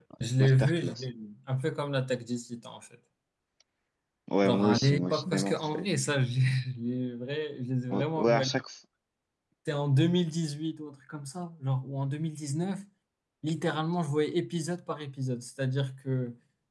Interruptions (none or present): present